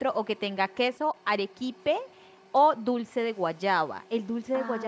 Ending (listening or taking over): taking over